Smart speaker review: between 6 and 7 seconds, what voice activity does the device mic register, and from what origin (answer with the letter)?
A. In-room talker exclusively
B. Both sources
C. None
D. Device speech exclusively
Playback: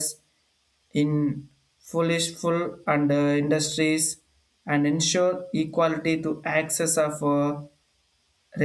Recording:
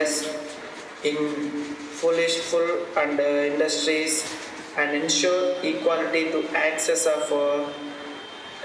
D